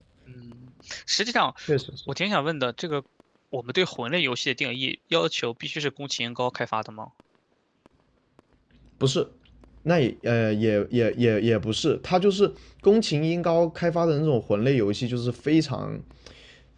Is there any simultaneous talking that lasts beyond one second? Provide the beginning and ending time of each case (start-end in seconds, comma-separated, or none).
none